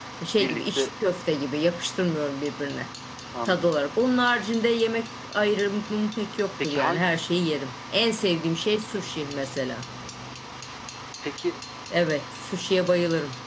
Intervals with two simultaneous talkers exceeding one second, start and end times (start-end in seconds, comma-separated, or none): none